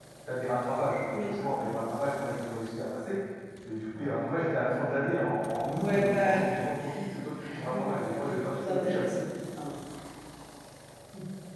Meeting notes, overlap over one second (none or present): present